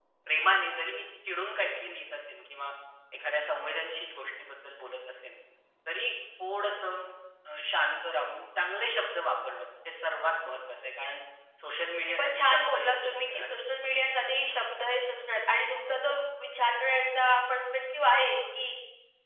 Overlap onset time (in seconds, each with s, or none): 12.1 s